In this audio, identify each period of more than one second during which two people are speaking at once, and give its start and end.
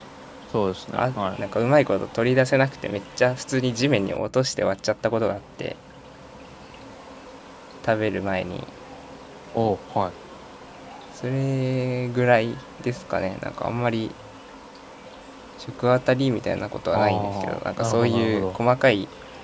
16.9-18.6

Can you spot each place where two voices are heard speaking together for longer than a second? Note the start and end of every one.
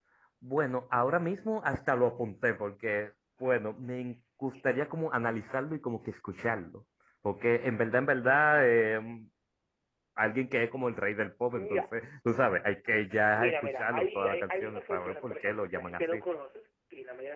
13.3-16.2

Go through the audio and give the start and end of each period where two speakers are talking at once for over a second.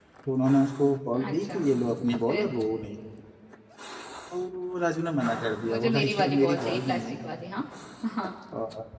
5.7-7.2

